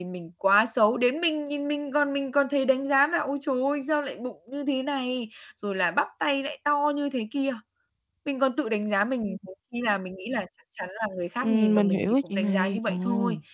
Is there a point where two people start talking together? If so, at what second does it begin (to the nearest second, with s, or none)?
11 s